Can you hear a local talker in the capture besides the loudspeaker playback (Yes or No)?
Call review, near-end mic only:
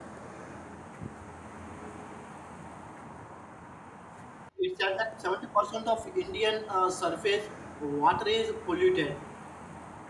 Yes